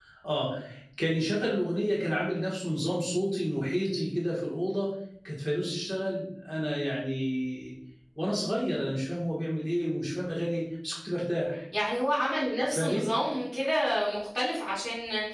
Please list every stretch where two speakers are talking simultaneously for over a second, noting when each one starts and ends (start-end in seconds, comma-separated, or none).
none